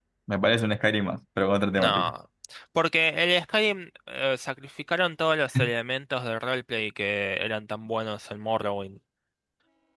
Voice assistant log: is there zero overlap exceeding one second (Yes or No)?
Yes